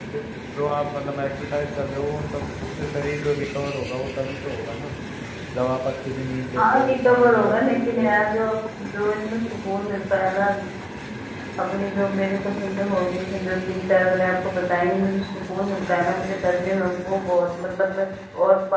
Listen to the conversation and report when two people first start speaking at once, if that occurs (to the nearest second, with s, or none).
7 s